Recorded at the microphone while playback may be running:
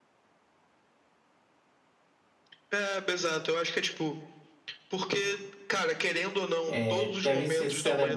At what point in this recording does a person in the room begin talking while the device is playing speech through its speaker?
6.7 s

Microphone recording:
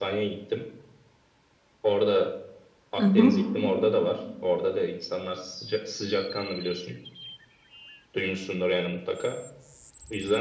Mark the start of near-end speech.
2.9 s

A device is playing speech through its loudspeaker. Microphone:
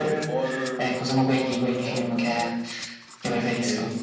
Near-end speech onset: none

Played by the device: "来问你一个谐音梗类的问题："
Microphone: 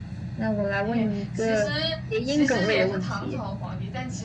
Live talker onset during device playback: 0.8 s

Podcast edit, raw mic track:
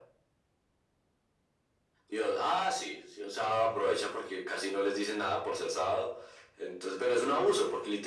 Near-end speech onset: none

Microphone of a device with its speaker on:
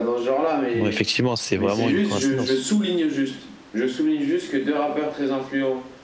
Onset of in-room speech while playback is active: 0.7 s

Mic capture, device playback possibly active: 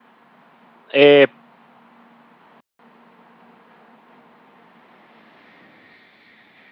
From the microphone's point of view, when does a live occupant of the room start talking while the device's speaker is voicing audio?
0.9 s

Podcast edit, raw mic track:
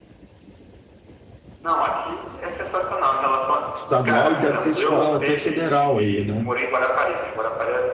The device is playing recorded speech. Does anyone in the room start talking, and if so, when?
3.7 s

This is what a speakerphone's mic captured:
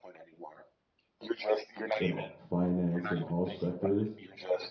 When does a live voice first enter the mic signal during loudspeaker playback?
2.0 s

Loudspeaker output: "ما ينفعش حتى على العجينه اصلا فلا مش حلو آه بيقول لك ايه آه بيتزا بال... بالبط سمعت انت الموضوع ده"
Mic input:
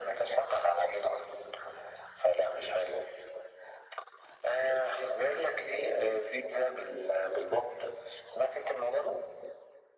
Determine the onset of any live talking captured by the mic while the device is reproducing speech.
none

